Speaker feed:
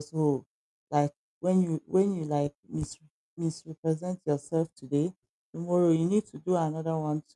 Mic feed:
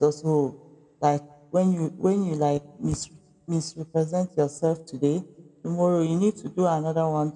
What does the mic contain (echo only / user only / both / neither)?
echo only